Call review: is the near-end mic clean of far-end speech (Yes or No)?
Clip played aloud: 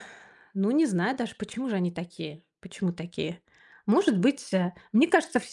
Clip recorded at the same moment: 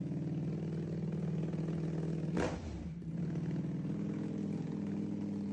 Yes